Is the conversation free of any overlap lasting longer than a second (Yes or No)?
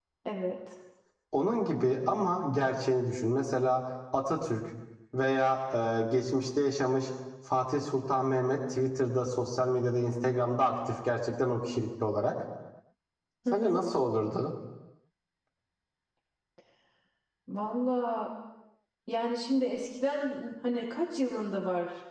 Yes